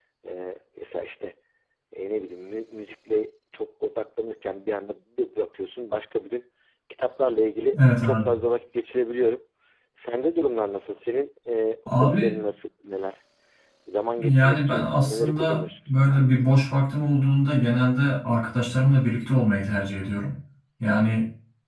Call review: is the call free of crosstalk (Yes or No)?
No